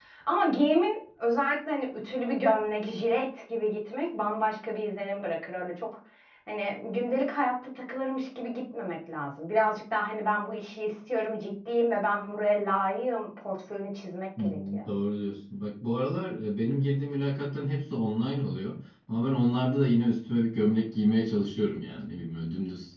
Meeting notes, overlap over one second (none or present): none